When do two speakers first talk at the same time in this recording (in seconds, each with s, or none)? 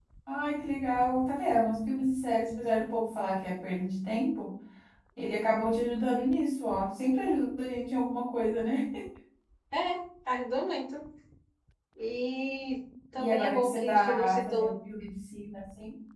13.2 s